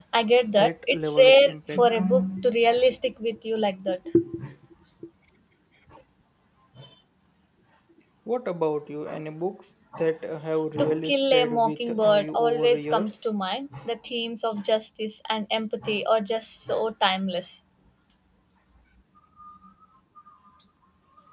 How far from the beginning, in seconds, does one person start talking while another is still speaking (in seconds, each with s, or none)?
0.6 s